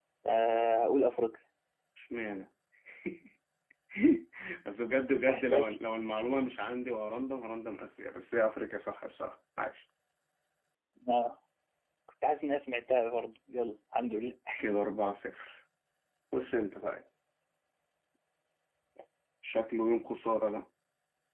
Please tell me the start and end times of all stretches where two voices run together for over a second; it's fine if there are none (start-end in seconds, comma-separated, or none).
none